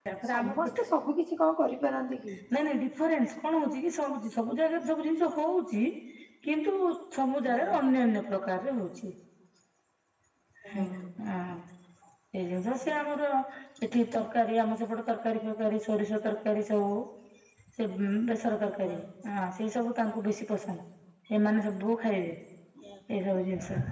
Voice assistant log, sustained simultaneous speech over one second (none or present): none